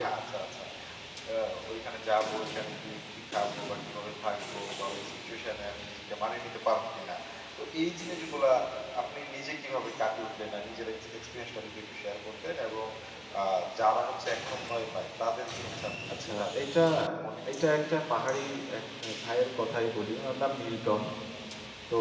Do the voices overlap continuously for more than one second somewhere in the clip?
No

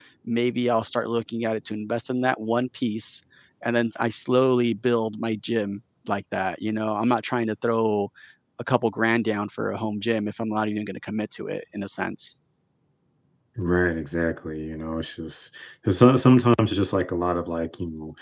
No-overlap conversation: Yes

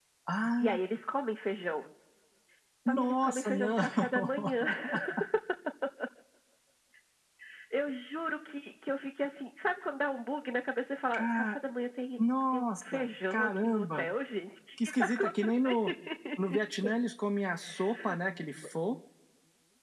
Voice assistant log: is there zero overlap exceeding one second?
No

